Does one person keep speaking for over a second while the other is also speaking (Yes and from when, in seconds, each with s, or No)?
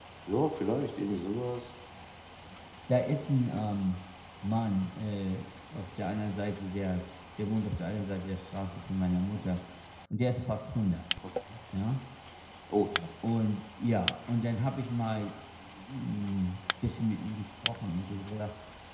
No